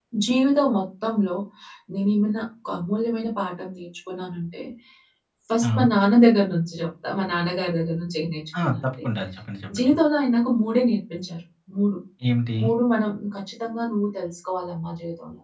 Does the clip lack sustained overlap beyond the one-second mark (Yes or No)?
Yes